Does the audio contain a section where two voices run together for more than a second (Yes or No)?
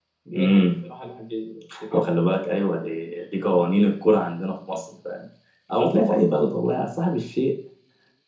No